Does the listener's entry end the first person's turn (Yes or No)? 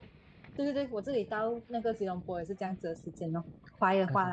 Yes